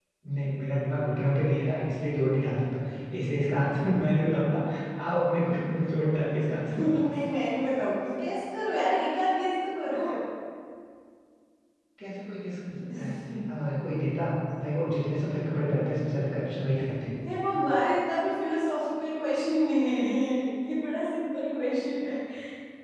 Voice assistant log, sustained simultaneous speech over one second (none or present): none